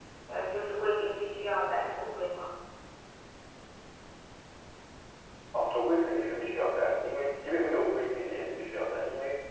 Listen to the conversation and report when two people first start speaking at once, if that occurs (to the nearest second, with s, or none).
none